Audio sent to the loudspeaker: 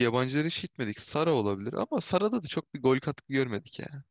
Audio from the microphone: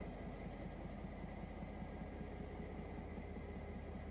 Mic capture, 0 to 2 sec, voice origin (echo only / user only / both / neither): neither